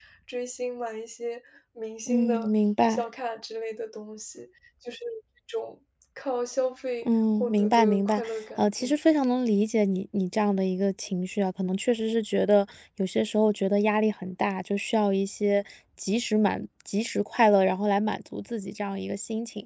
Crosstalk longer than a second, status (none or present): present